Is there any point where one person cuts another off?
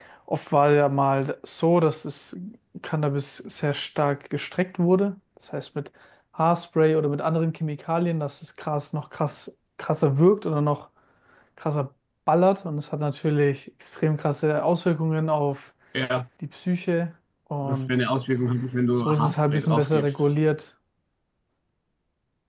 Yes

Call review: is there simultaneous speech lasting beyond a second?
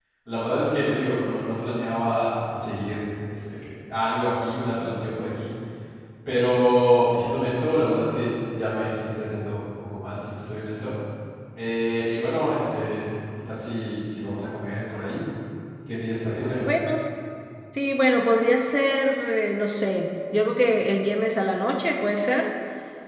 No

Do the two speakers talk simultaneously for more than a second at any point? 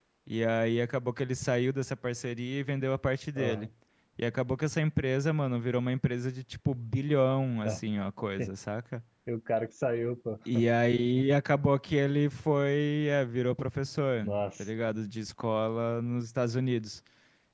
No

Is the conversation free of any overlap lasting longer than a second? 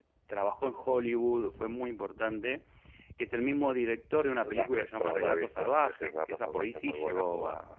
No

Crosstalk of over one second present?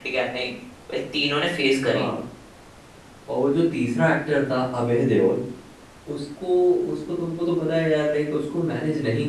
No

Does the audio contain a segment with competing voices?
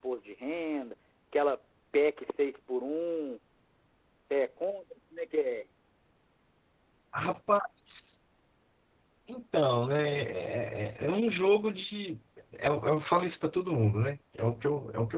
No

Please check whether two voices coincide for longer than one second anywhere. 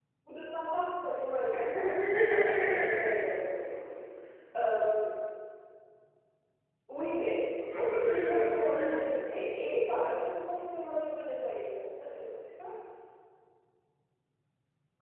Yes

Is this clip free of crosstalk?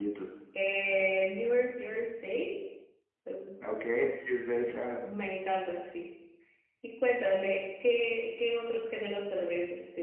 Yes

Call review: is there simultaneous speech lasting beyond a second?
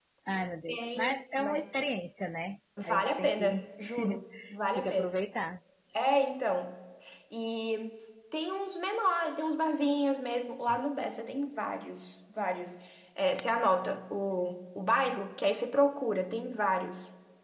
Yes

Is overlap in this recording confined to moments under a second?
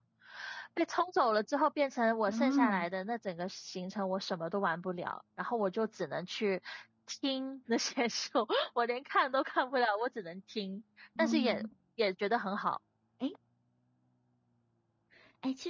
Yes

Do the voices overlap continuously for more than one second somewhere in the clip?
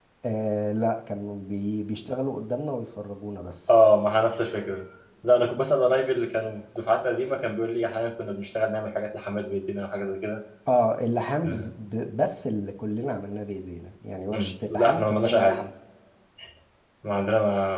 Yes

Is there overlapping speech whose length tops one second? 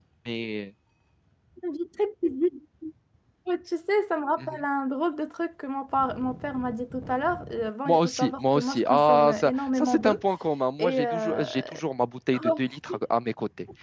Yes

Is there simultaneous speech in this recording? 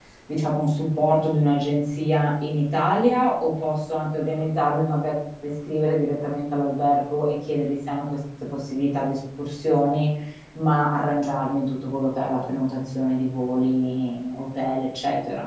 No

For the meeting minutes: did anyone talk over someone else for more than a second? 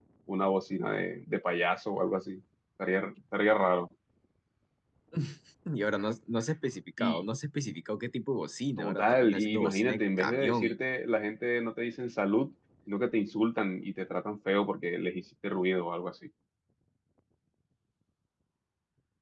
Yes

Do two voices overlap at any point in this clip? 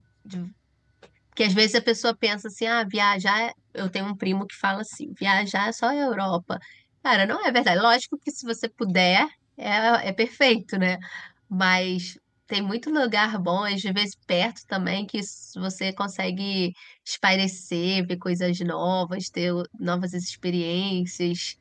No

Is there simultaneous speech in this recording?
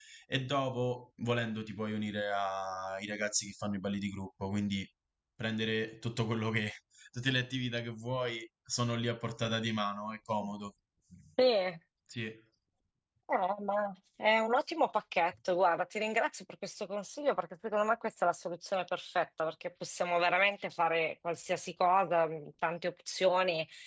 No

